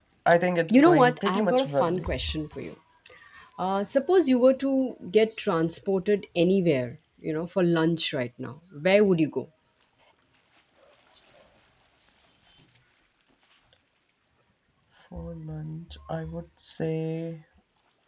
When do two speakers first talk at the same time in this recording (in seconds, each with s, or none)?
0.7 s